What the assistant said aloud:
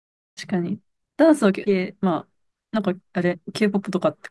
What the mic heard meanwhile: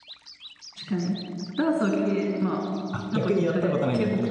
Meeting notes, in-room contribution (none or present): present